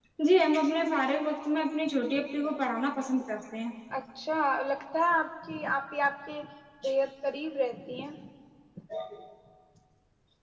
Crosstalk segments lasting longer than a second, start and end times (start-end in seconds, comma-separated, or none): none